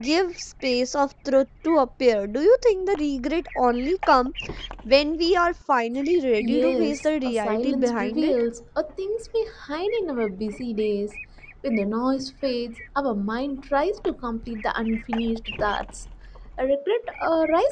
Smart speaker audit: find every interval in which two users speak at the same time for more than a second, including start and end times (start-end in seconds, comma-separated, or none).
6.4-8.3